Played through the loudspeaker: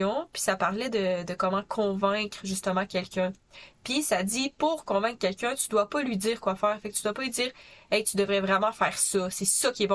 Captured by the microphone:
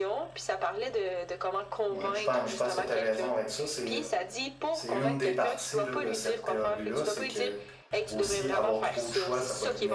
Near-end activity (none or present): present